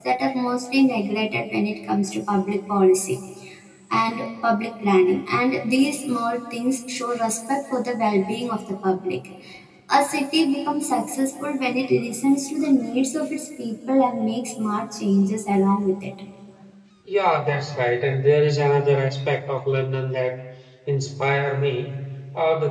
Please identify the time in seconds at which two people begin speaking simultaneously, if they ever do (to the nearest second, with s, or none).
none